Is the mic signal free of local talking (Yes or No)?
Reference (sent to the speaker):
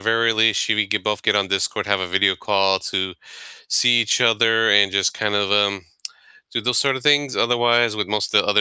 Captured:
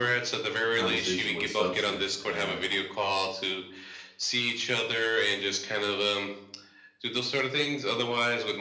No